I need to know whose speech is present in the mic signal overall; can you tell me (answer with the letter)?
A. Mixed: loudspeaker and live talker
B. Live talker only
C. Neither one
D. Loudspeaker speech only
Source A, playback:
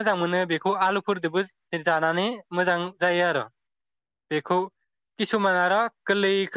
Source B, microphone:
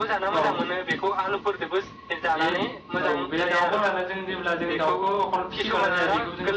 A